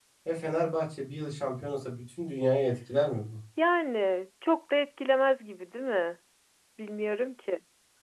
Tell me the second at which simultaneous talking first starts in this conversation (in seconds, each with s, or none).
none